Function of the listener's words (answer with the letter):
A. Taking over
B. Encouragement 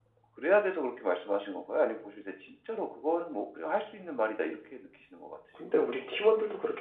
A